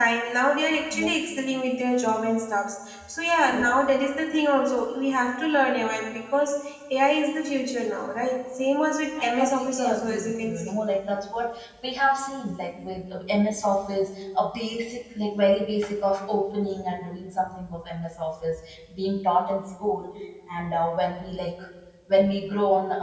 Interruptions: present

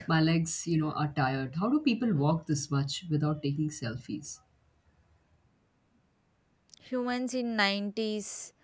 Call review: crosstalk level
none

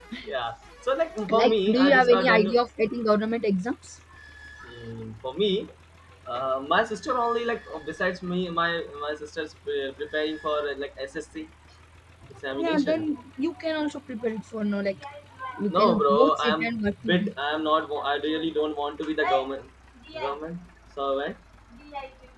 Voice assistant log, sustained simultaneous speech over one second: present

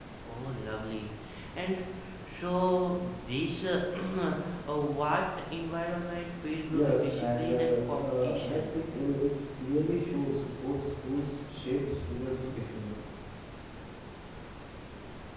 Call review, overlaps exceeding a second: present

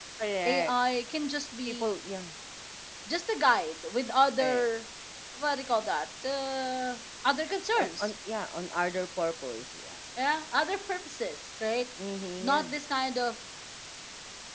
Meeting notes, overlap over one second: none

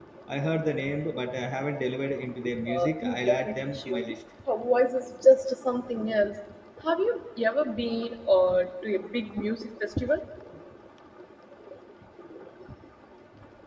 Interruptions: present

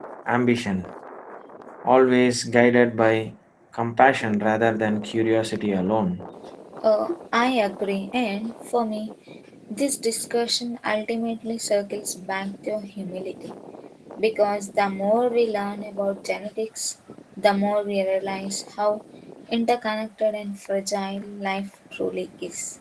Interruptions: none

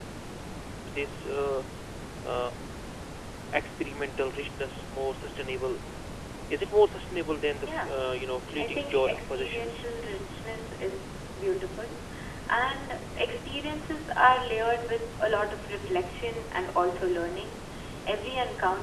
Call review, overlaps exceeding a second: present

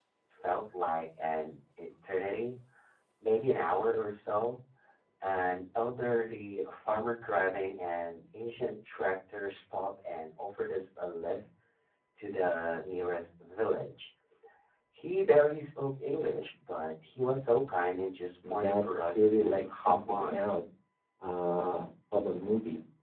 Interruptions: present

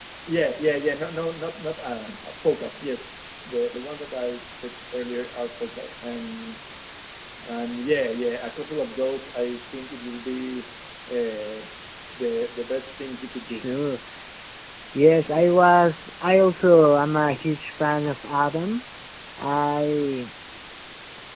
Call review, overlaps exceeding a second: none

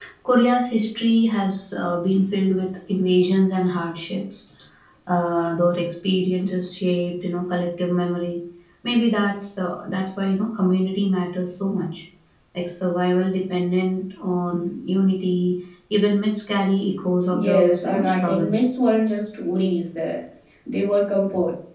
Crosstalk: present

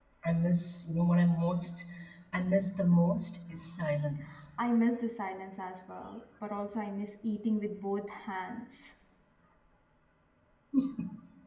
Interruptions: none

